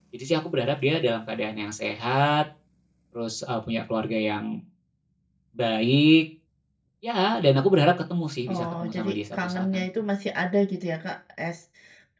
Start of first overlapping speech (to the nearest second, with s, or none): 8 s